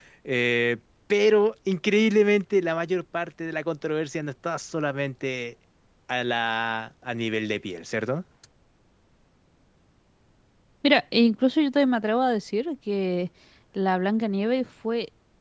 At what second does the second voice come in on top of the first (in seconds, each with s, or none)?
none